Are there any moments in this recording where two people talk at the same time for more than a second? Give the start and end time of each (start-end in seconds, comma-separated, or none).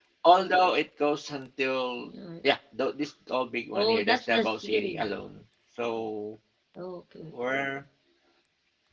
3.7-5.0